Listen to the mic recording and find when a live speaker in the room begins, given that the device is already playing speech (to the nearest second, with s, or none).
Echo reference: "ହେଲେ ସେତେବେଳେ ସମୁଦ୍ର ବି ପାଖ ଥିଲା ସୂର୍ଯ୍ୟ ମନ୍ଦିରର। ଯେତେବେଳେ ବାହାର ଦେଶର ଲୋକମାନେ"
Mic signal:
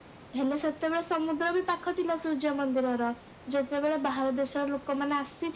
none